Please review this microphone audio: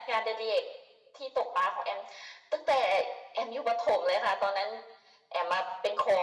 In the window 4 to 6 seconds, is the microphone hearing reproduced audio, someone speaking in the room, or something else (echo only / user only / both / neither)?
echo only